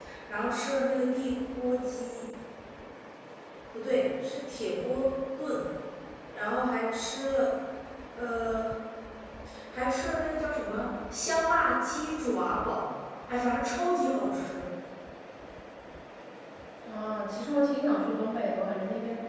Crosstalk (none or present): none